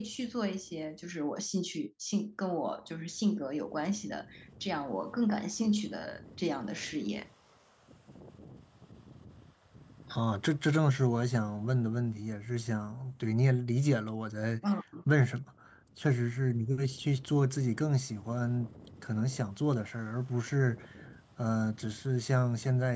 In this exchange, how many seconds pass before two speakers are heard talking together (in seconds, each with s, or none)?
none